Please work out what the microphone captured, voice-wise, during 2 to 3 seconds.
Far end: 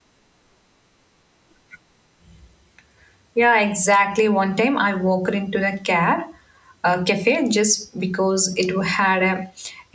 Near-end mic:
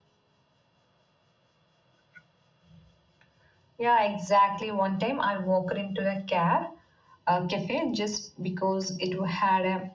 neither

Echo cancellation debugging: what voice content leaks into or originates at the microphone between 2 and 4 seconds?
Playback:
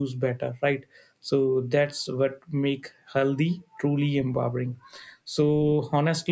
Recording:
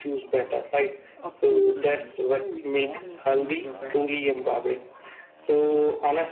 both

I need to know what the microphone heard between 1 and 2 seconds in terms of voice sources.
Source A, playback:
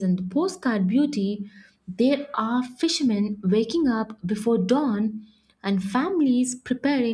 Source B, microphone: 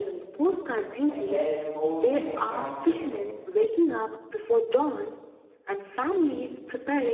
both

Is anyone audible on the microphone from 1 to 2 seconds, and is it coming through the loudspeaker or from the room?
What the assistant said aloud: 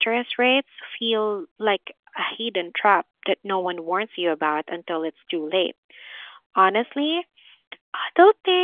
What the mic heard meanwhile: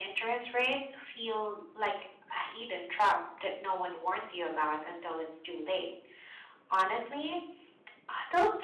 echo only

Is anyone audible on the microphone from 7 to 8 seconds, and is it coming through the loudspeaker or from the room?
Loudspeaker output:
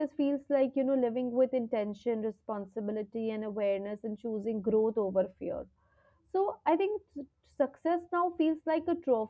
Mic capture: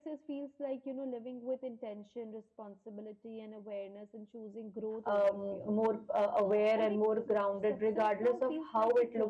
both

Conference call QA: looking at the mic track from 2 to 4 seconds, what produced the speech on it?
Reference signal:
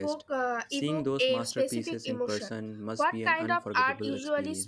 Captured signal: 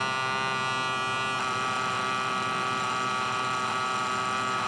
neither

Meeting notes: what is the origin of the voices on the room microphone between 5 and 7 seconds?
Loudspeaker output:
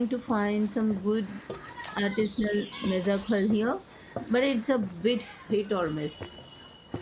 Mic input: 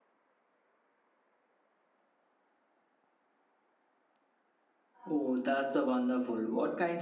user only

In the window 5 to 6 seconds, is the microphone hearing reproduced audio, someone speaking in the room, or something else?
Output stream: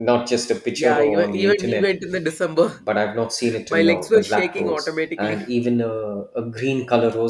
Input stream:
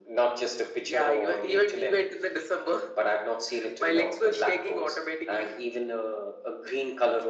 echo only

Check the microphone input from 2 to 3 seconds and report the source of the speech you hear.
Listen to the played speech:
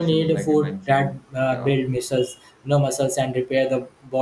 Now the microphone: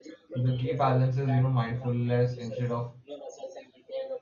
both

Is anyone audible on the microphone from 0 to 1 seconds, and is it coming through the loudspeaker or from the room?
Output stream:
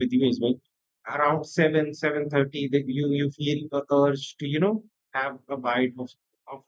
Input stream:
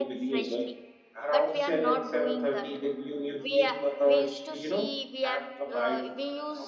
both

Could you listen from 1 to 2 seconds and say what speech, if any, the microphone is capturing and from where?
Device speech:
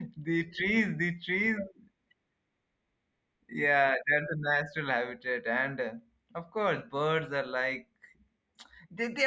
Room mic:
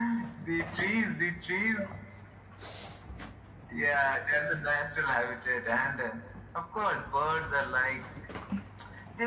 echo only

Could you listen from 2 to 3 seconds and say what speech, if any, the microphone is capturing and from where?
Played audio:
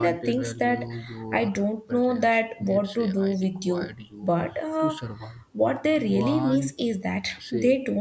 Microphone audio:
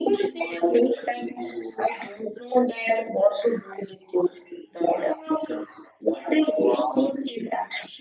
echo only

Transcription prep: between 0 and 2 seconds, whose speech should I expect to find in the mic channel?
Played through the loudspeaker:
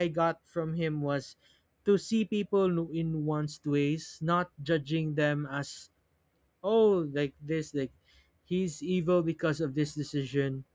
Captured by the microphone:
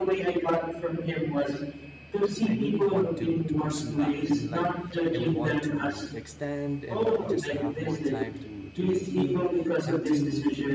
echo only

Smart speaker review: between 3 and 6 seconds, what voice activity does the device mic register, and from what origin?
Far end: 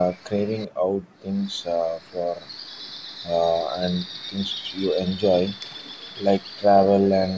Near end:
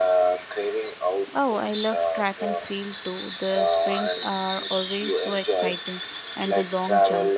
both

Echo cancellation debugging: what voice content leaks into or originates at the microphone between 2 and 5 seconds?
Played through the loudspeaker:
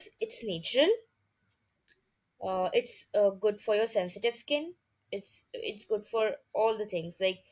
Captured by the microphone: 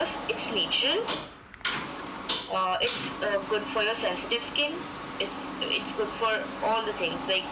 echo only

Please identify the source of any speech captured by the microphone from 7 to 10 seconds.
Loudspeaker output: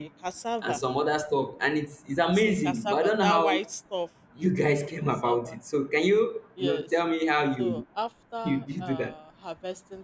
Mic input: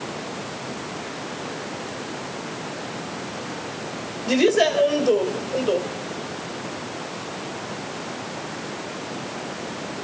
neither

